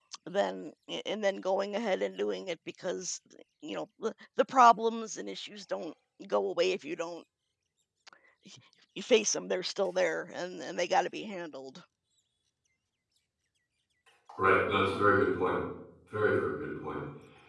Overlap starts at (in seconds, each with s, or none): none